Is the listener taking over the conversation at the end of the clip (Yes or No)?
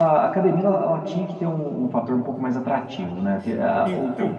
No